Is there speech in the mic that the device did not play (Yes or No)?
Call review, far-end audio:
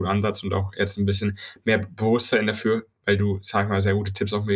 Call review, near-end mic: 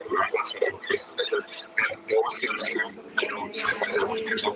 Yes